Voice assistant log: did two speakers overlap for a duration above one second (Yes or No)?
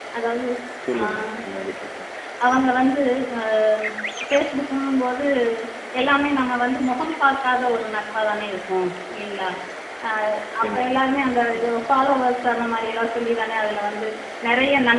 No